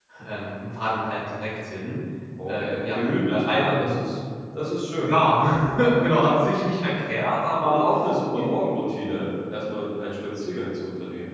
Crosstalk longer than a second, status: present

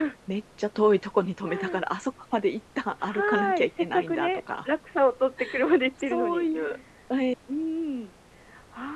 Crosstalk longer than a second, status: present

